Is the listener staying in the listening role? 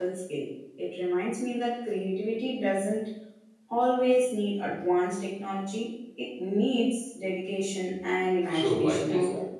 No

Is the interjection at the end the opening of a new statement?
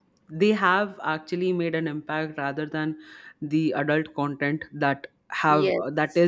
No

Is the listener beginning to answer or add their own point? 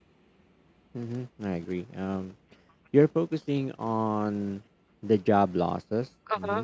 No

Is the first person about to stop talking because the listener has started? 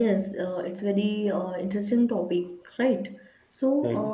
No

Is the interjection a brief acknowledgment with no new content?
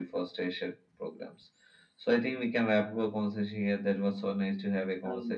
Yes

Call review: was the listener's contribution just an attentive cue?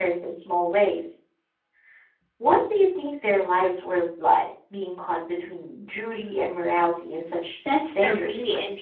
No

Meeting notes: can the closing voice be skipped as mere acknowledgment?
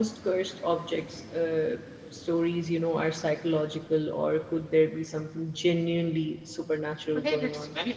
No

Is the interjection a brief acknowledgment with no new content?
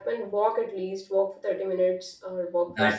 No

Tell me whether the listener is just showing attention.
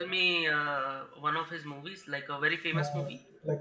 No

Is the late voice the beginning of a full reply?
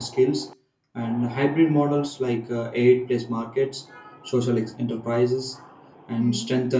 No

